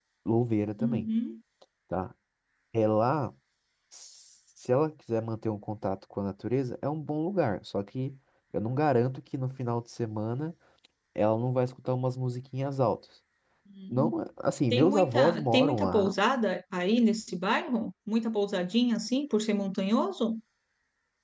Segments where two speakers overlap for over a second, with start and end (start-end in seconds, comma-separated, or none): 14.7-16.2